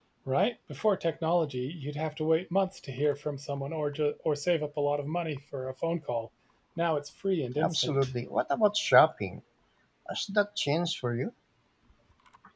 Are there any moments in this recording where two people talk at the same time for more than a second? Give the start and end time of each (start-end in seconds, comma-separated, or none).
none